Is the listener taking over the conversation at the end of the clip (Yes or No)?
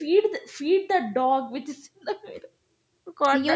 Yes